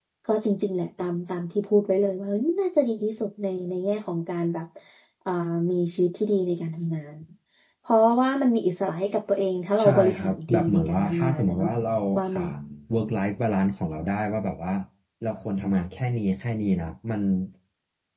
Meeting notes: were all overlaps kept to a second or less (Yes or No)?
No